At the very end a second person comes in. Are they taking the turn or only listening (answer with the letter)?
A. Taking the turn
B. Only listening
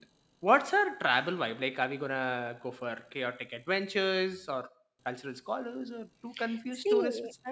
A